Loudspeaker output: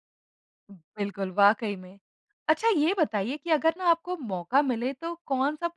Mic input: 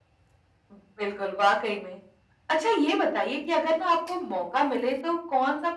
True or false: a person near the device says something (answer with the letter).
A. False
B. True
A